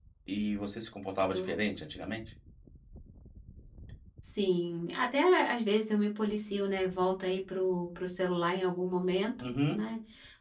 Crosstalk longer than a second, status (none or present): none